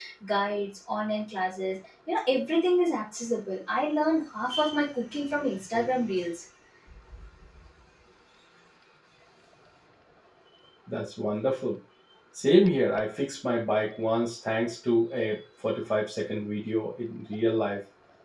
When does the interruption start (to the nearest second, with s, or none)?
none